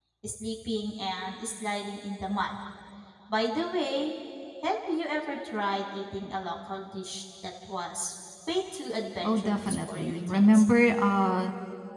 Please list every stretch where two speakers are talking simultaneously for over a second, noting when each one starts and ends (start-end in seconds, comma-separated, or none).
9.2-10.6